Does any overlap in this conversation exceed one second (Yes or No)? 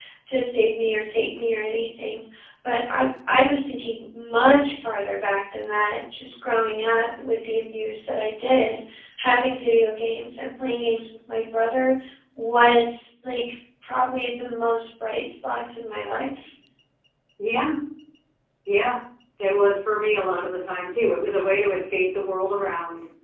No